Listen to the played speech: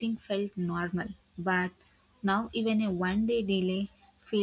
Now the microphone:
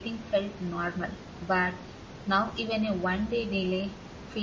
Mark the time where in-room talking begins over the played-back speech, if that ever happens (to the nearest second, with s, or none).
none